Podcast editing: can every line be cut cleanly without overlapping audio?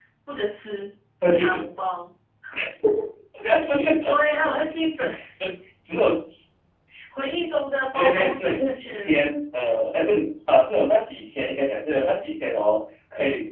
No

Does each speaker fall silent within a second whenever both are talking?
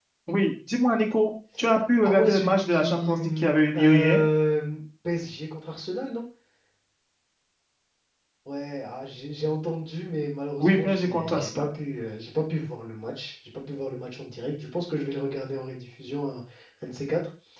No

